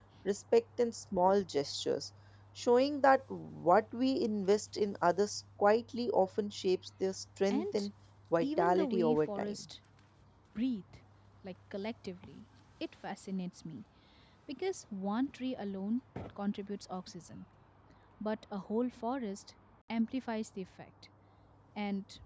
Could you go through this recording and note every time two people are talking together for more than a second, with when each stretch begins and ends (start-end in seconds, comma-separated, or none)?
8.4-9.6